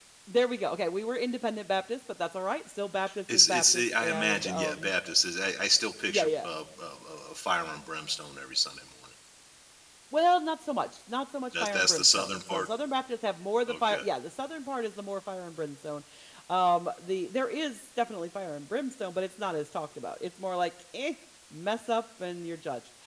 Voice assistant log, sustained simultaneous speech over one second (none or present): present